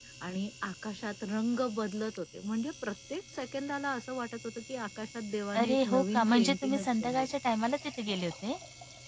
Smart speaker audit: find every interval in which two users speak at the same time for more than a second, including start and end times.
5.6-7.3

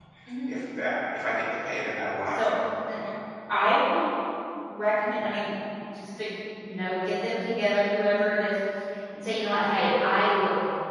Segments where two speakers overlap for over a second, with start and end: none

